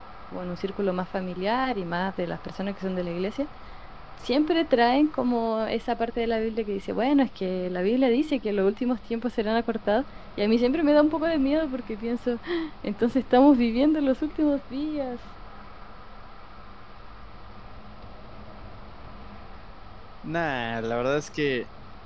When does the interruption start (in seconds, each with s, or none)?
none